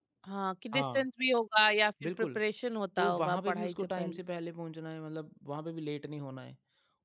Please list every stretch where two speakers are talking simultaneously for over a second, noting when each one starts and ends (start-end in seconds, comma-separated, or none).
3.0-4.2